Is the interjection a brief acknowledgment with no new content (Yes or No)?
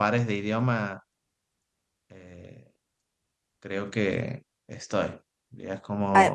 Yes